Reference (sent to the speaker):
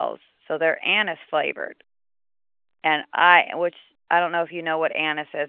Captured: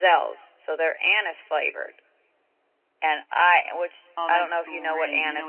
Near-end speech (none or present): present